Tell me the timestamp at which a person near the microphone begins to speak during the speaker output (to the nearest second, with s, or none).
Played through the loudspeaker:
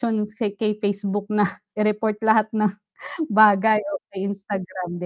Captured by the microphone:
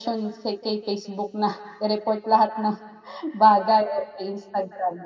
none